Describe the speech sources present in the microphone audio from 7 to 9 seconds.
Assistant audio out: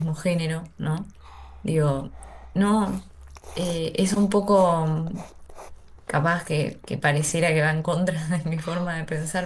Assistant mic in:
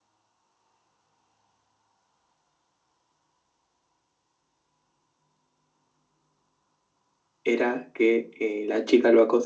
user only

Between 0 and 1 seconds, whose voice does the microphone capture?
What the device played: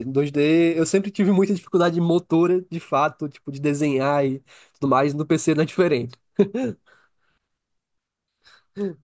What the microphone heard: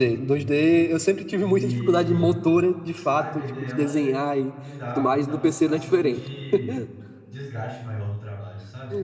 both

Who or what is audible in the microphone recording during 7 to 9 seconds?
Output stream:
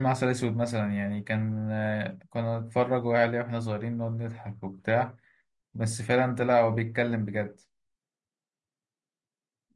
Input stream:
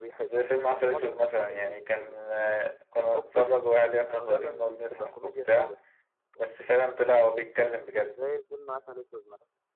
both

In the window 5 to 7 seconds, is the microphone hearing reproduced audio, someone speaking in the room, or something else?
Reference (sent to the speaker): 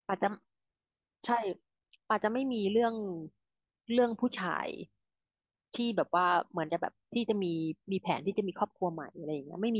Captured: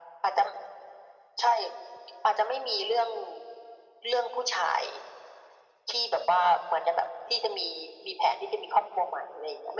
echo only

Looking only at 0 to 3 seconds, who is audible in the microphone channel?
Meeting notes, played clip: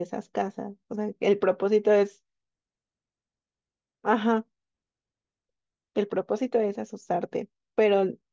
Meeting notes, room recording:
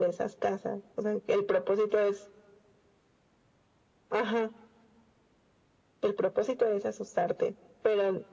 echo only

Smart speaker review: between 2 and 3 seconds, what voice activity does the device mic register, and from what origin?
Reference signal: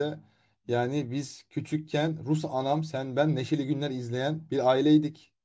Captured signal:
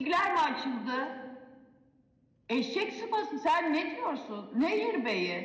user only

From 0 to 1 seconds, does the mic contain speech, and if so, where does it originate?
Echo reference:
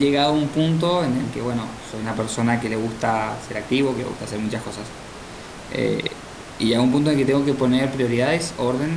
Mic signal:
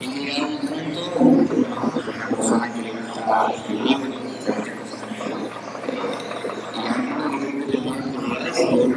echo only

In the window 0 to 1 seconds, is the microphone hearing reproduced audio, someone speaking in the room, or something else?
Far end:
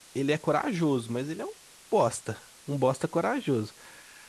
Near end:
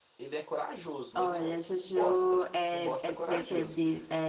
echo only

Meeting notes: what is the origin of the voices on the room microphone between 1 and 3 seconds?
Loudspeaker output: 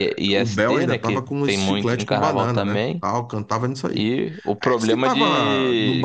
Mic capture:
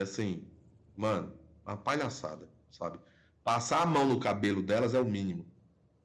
user only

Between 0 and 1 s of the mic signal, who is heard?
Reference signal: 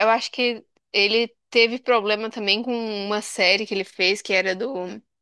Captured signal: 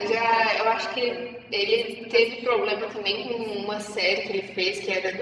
both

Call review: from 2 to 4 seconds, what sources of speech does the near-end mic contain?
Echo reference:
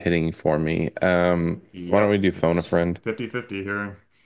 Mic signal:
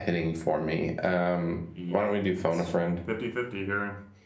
echo only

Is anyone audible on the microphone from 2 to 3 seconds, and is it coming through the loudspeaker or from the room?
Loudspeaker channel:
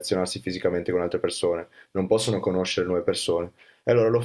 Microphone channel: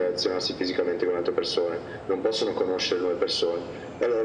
echo only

